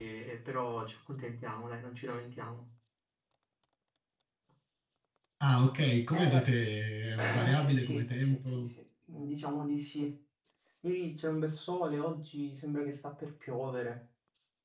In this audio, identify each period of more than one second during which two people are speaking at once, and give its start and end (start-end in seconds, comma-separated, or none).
7.2-8.6